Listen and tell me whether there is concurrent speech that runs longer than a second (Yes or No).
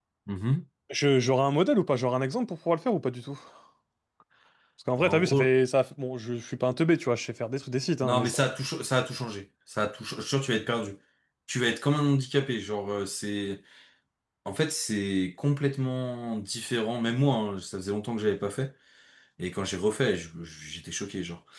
No